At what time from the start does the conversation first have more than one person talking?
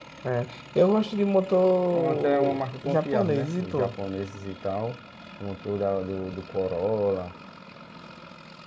1.9 s

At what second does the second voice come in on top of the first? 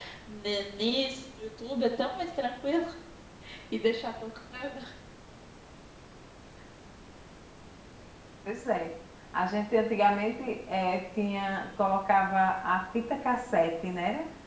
none

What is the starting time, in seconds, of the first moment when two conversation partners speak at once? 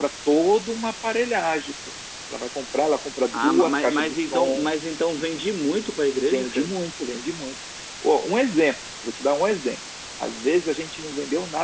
3.3 s

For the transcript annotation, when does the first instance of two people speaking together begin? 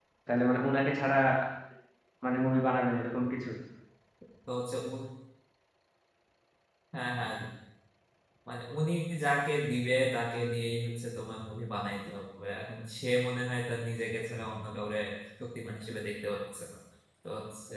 none

